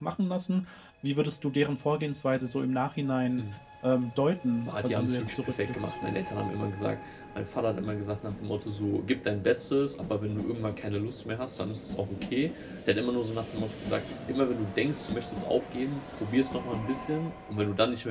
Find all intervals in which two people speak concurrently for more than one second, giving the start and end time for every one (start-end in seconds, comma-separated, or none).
4.7-5.9